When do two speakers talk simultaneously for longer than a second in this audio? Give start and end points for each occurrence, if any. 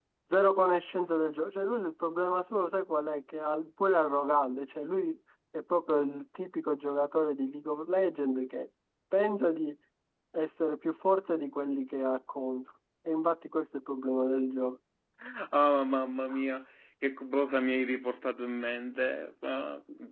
none

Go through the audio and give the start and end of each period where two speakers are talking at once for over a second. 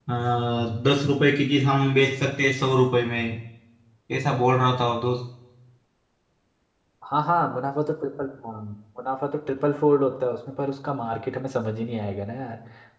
none

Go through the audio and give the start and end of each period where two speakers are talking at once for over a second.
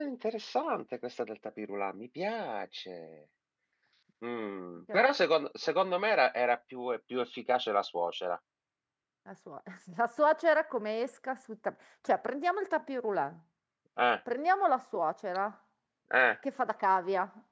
none

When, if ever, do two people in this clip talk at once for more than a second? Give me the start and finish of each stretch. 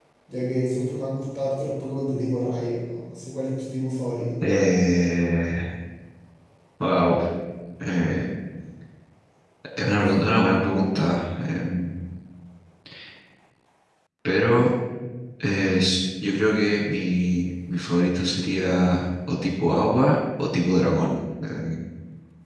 none

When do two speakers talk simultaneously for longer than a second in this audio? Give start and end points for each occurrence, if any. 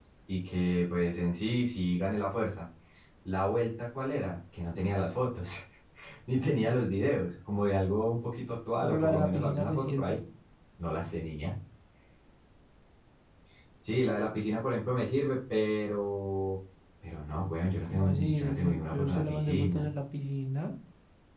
8.8-10.2, 17.8-19.9

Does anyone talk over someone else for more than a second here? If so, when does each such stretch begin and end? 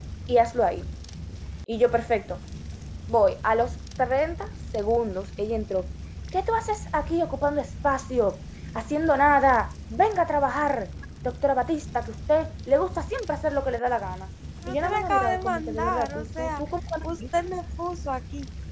14.7-16.6

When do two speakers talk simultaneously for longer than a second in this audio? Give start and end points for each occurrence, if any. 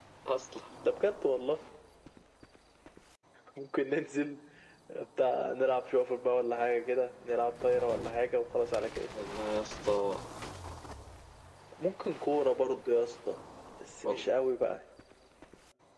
none

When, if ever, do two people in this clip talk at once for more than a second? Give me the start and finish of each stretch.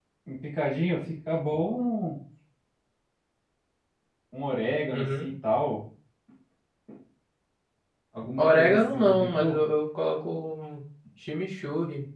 8.4-9.6

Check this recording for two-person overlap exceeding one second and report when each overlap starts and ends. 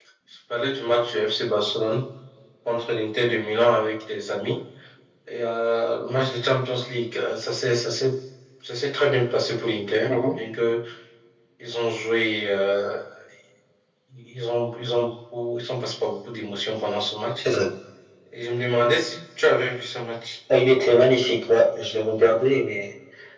none

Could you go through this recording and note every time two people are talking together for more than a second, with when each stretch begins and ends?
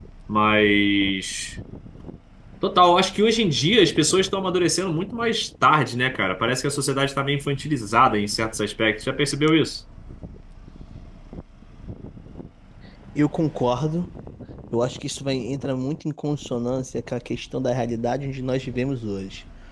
none

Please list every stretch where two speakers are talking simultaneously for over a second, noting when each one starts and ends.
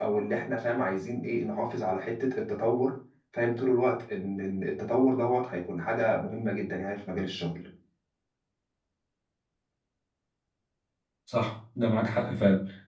none

